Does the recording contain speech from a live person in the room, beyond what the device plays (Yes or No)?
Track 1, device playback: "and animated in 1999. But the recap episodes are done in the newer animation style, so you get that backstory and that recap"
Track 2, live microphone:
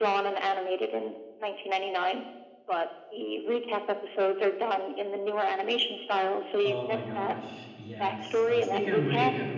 Yes